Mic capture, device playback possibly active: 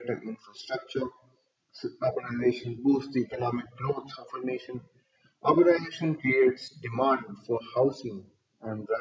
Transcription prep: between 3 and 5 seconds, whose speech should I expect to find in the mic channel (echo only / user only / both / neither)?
echo only